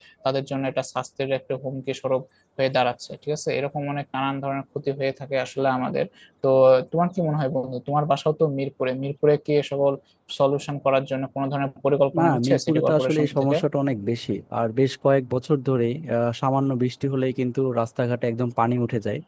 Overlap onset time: 12.1 s

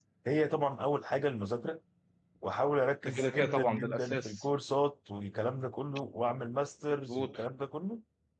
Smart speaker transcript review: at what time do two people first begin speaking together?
3.0 s

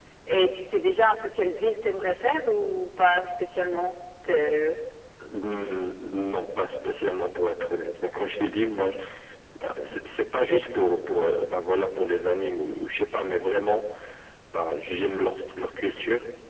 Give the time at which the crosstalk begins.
none

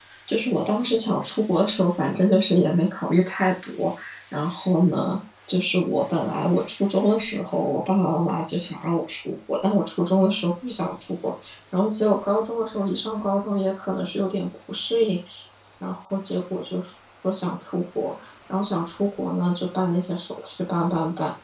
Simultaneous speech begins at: none

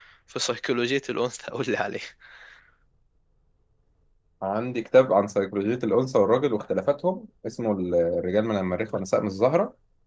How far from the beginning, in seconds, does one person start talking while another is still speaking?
none

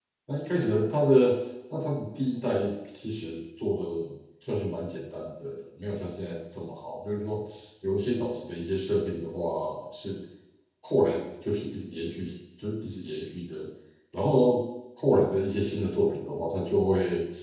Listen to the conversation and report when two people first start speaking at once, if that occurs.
none

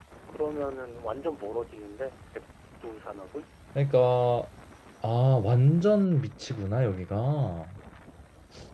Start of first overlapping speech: none

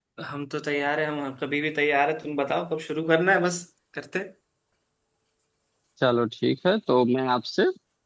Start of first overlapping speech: none

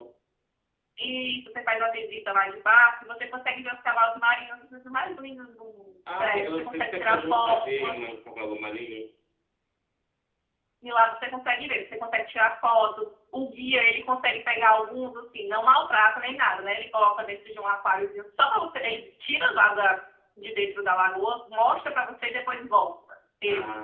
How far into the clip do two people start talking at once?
6.1 s

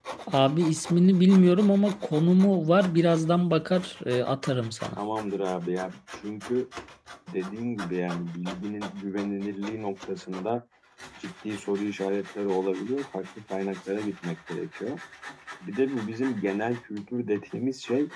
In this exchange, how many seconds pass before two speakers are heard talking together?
none

